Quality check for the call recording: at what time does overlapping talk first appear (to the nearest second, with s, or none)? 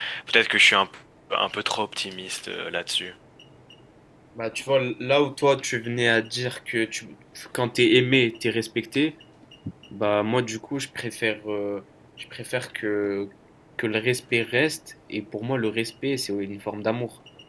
none